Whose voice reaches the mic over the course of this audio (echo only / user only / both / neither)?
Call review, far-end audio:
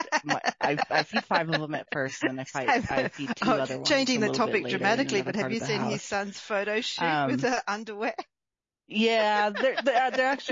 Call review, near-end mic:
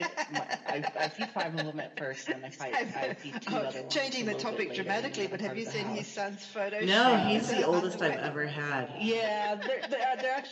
both